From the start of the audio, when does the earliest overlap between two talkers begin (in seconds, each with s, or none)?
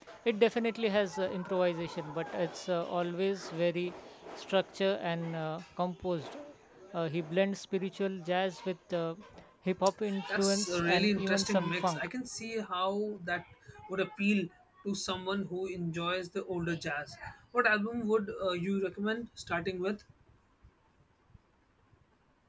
10.3 s